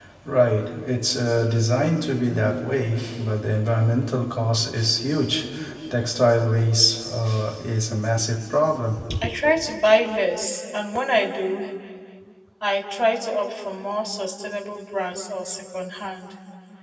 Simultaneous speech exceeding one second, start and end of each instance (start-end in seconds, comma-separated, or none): none